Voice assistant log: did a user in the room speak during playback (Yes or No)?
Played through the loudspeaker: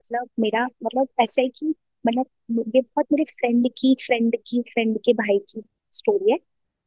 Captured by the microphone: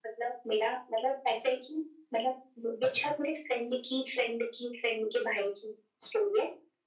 Yes